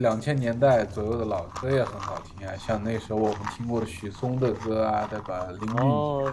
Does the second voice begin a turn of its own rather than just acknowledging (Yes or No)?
Yes